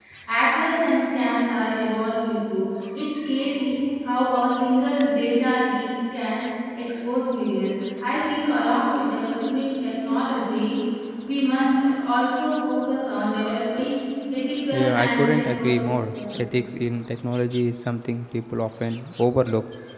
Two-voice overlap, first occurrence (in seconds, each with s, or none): 14.7 s